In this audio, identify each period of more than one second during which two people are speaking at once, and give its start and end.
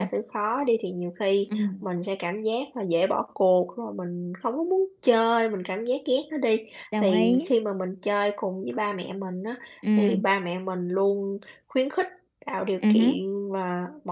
none

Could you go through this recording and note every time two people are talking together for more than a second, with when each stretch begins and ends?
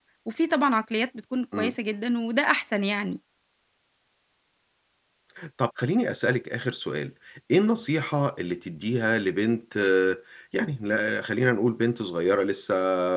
none

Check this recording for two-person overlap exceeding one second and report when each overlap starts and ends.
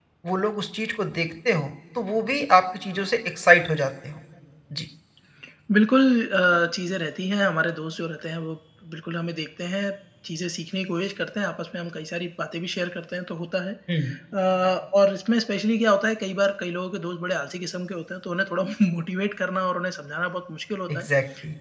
none

